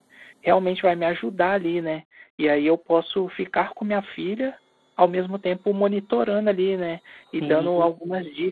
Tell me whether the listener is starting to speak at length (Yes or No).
No